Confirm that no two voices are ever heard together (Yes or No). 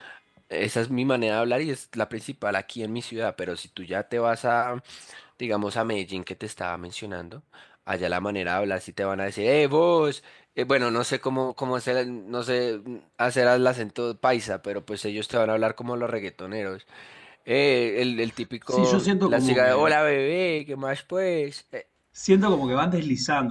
No